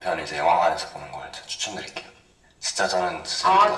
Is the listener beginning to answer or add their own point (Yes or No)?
Yes